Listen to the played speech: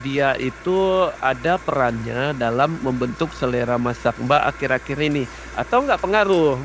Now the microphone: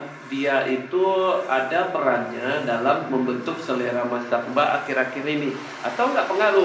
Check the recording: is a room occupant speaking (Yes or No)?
No